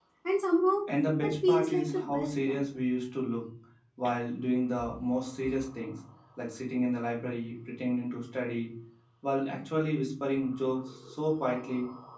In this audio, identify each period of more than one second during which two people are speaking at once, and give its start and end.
1.2-2.6

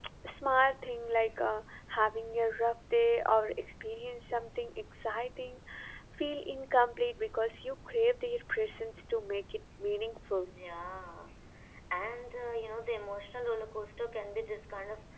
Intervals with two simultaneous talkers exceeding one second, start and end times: none

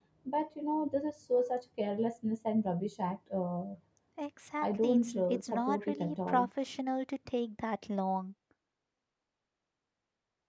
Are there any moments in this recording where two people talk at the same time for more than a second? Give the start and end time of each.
4.6-6.5

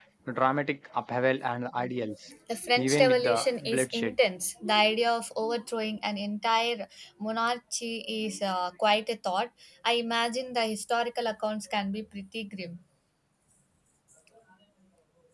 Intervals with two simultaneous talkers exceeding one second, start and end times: 2.8-4.2

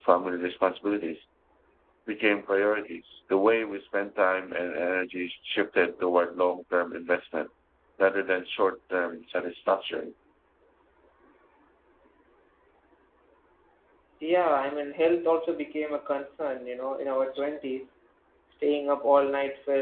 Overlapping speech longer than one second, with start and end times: none

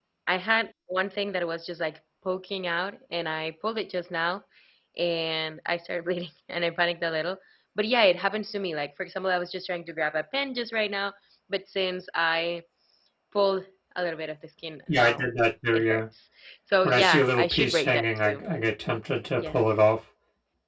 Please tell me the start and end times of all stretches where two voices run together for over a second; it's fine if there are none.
16.8-18.4

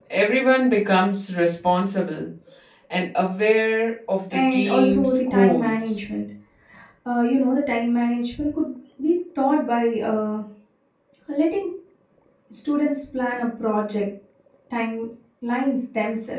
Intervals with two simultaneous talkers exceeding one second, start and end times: 4.3-6.0

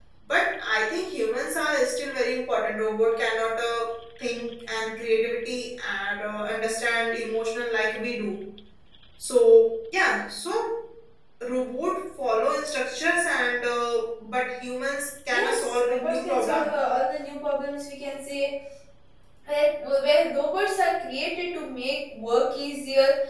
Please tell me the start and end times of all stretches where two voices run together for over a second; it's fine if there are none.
15.3-16.7

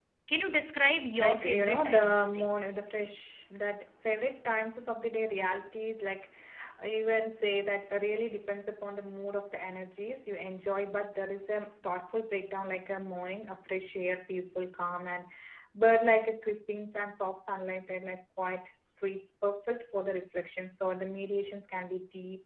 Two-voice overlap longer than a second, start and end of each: 1.2-2.5

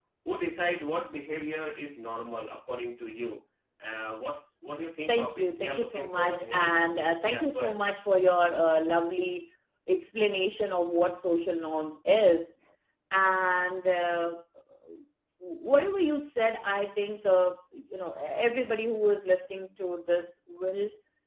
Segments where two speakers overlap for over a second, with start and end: 5.1-7.8

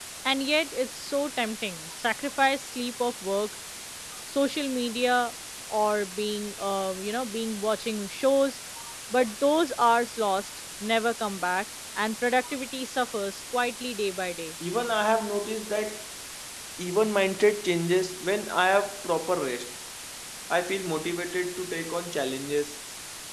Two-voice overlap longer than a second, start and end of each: none

